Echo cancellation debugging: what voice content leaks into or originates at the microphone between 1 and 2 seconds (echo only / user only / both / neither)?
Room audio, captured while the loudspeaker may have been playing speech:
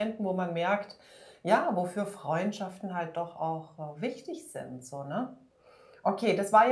user only